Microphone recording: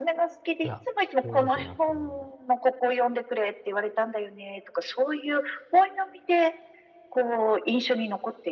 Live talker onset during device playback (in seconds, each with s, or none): 0.6 s